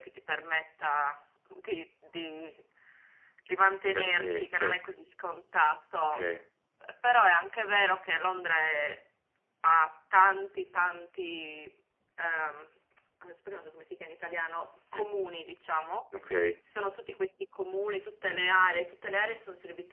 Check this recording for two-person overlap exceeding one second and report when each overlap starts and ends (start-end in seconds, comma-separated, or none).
3.6-4.9